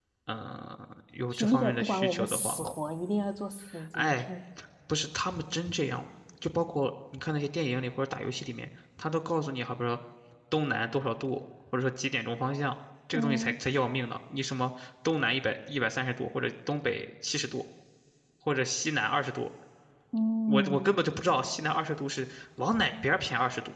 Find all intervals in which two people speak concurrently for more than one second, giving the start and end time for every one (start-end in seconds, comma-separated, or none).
1.3-2.6